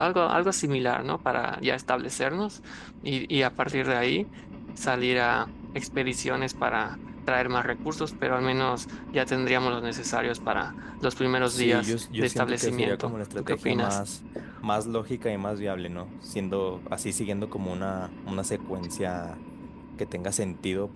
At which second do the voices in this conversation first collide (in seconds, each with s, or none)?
11.5 s